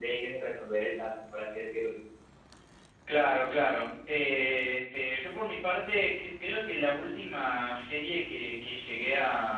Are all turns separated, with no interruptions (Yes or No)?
Yes